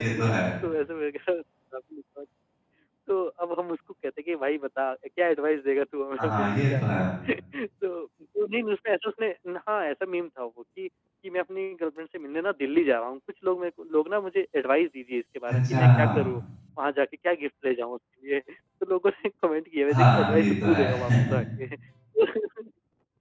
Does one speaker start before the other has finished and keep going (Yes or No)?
Yes